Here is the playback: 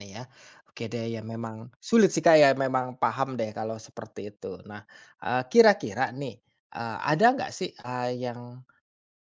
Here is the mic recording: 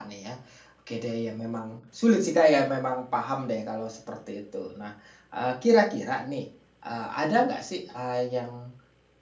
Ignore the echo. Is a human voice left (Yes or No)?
No